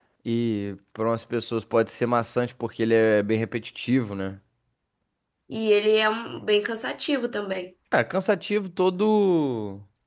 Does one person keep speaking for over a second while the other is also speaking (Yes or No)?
No